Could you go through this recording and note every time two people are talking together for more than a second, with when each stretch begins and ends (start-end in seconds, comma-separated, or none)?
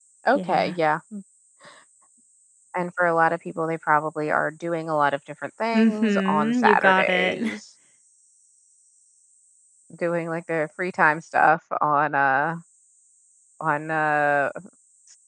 5.8-7.4